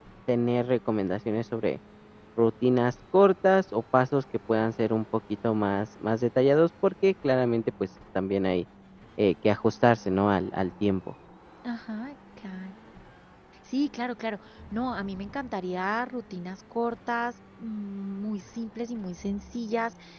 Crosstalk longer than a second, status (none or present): none